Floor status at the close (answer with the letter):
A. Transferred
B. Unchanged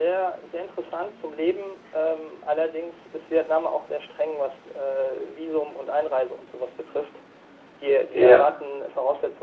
B